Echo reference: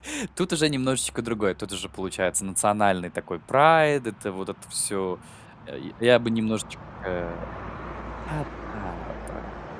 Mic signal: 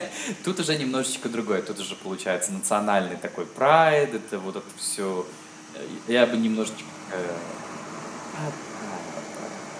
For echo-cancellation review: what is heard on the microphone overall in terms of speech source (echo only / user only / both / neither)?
echo only